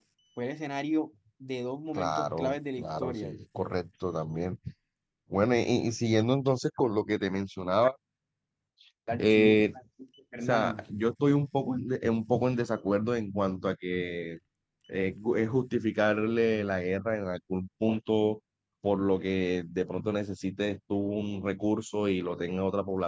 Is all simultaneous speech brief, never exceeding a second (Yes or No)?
No